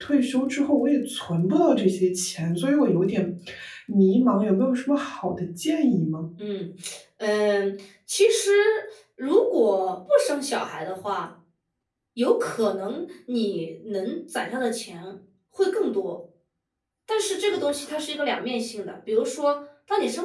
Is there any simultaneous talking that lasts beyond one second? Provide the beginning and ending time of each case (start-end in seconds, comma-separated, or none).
none